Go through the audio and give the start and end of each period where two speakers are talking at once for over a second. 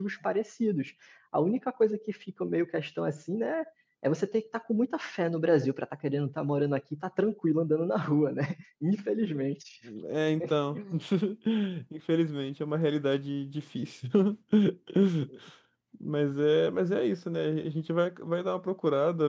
none

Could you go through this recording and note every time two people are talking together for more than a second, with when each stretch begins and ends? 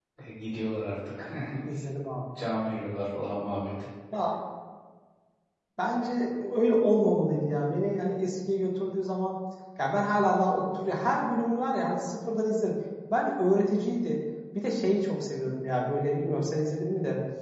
none

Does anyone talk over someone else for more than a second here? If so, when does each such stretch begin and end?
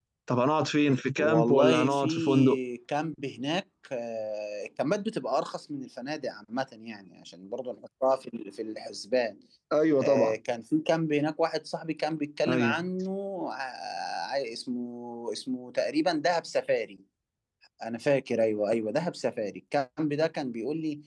1.2-2.6

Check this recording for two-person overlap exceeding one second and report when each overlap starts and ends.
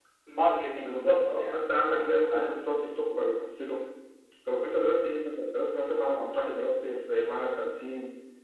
0.8-2.6

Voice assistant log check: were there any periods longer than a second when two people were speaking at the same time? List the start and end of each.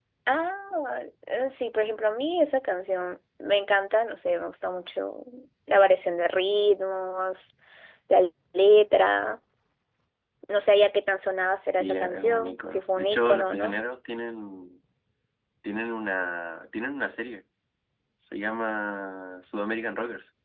11.8-13.8

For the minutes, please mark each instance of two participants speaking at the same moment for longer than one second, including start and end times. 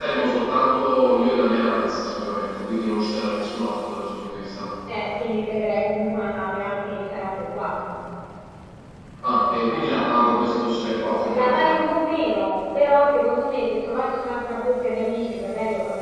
none

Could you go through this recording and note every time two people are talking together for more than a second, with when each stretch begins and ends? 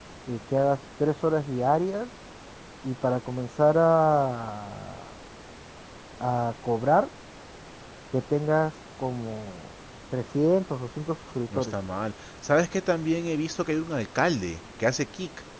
none

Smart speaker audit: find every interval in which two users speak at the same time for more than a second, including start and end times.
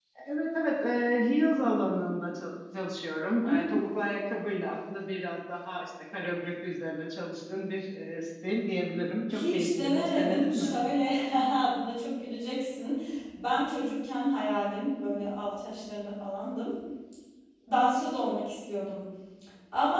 9.3-10.8

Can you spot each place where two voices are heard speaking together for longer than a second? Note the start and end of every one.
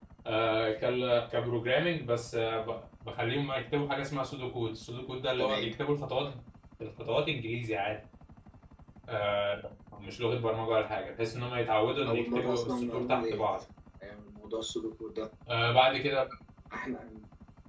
12.1-13.4

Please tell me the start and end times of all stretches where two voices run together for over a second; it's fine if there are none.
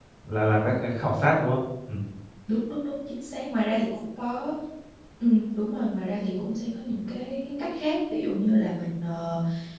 none

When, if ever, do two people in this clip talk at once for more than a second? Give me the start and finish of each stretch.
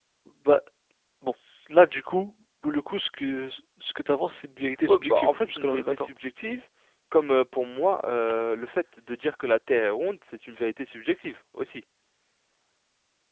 4.9-6.1

